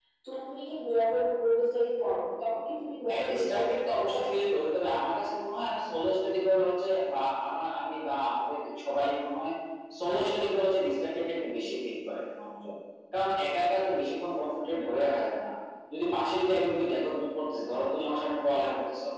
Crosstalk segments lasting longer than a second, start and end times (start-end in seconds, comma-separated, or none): 3.1-4.4